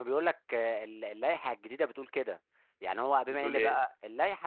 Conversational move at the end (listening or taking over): listening